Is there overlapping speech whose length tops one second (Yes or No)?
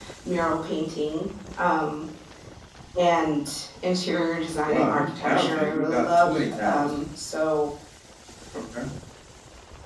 Yes